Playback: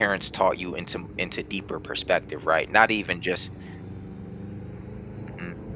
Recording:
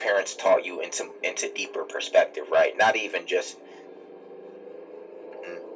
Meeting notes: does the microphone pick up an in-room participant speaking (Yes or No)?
No